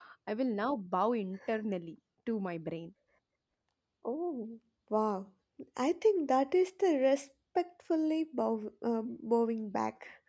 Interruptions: none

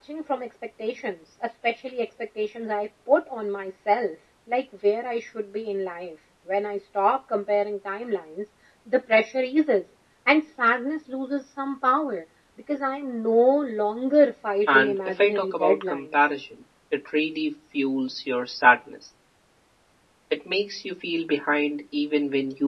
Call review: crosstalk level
present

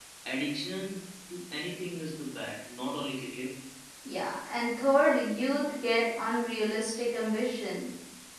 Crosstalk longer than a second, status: none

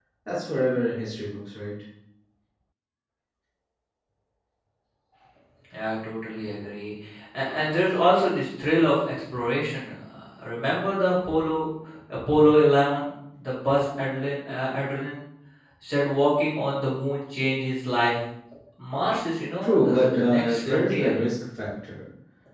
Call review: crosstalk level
present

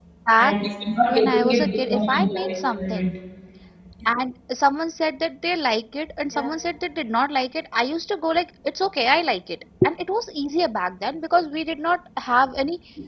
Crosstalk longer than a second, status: present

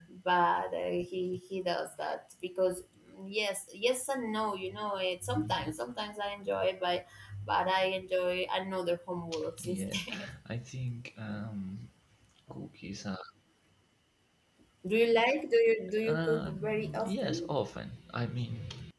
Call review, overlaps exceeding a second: present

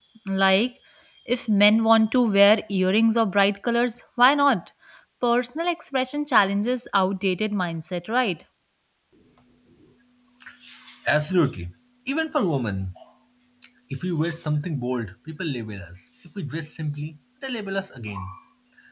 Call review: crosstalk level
none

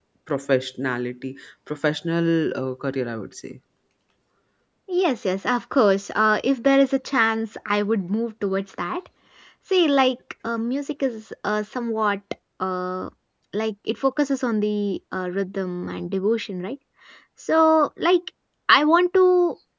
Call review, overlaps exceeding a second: none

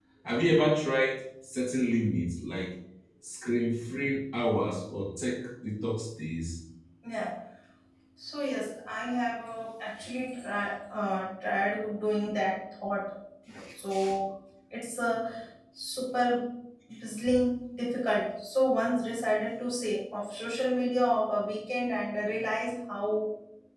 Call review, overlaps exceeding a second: none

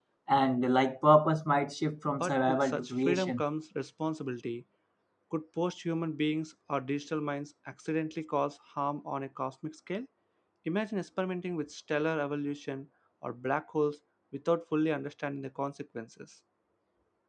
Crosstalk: present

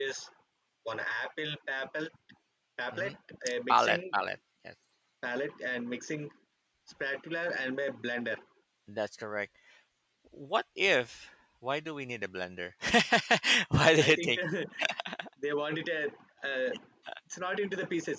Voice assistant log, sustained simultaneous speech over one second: none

